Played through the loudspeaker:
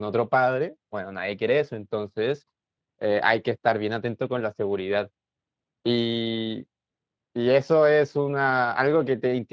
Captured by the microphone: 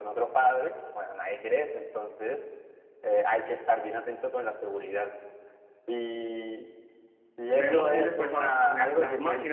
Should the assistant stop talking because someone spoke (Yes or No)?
Yes